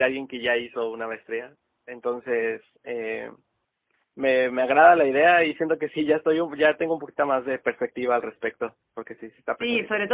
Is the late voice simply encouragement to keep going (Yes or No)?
No